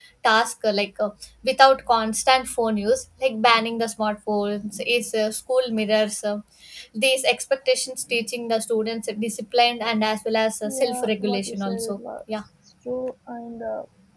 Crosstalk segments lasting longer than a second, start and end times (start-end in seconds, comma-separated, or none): 10.6-12.0